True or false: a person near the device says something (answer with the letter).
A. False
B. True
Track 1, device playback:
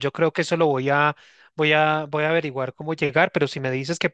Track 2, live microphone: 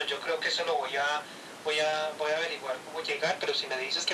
A